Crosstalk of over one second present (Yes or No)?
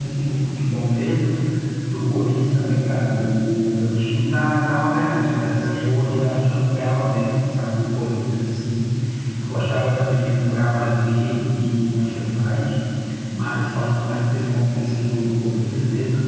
No